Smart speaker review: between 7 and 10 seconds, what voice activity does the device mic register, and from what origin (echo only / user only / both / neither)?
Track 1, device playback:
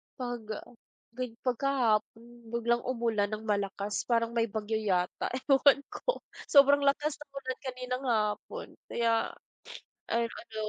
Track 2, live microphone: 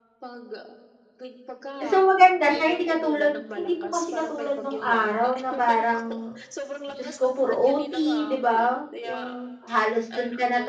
both